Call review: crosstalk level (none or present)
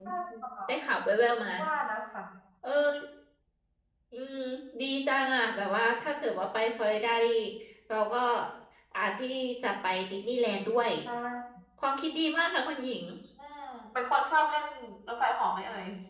none